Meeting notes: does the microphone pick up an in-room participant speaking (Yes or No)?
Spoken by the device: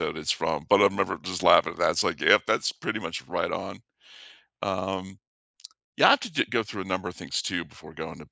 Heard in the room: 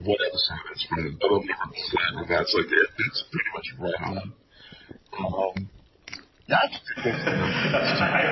Yes